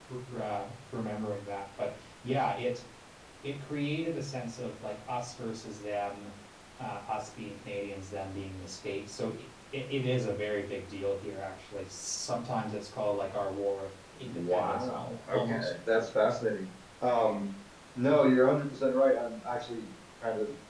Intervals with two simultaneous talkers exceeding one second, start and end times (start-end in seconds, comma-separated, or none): 14.2-15.7